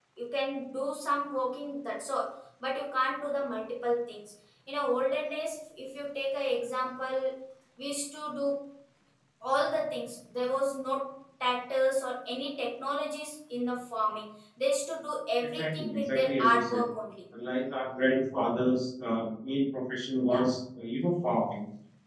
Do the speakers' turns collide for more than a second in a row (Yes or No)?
Yes